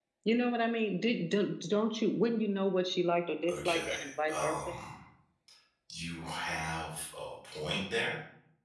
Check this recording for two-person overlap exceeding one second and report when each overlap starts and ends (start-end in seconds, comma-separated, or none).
3.5-4.7